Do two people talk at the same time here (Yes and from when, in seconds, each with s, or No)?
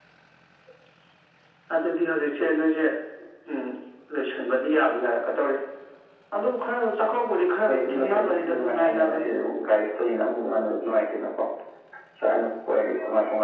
Yes, from 7.7 s